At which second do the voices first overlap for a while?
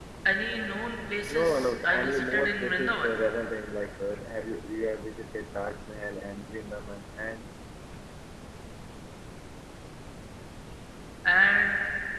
1.3 s

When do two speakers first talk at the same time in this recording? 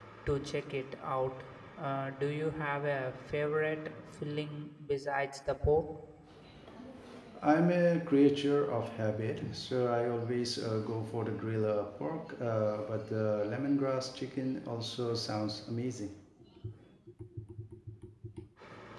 none

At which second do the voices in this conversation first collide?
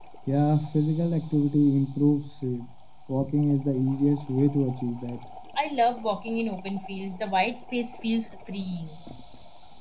none

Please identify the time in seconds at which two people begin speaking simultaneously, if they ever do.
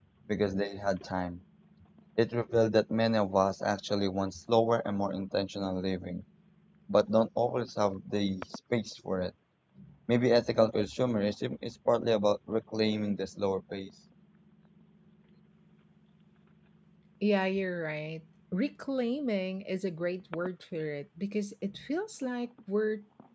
none

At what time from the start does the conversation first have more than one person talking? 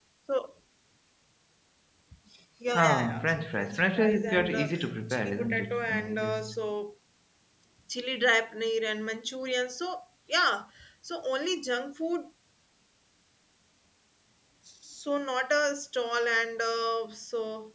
2.7 s

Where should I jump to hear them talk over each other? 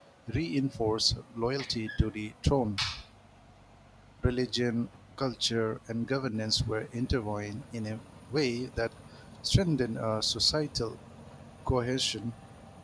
none

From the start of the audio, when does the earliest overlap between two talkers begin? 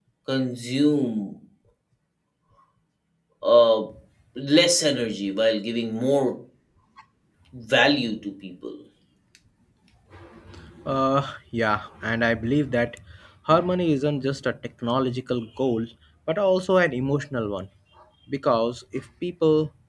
none

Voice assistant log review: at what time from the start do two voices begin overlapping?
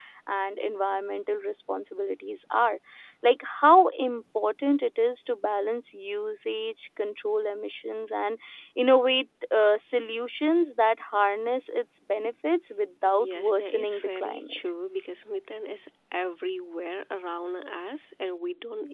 13.0 s

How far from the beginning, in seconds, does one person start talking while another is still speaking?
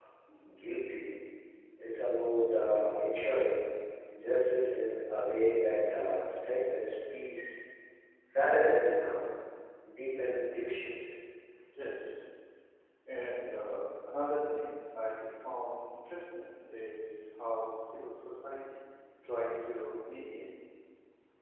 none

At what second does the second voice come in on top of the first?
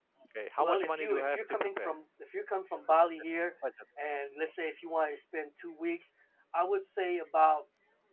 0.6 s

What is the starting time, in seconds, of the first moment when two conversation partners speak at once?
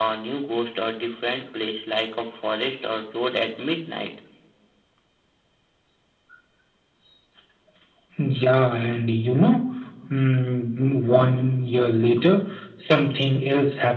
none

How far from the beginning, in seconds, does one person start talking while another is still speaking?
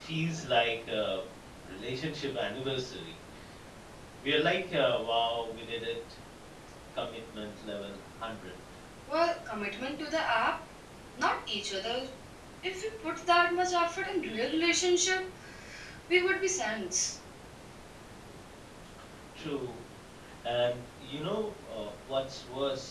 none

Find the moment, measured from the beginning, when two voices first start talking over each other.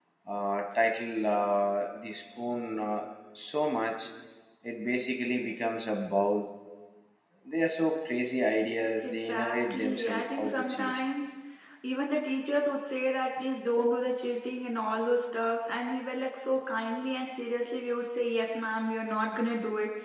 9.0 s

